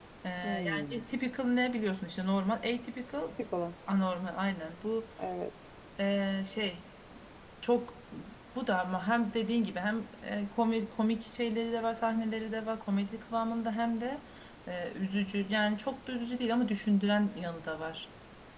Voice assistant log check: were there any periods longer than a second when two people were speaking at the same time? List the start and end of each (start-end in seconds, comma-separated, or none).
none